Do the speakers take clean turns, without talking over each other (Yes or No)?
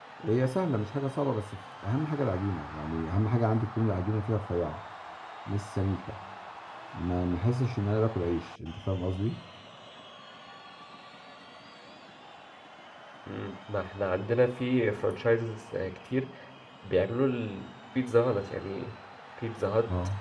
Yes